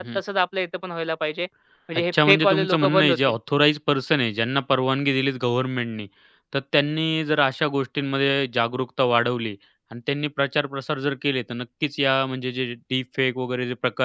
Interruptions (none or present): present